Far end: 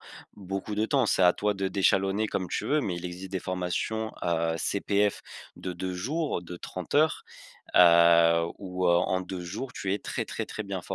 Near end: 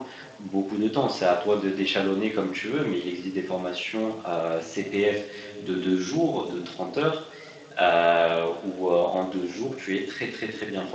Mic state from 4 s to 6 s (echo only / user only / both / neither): echo only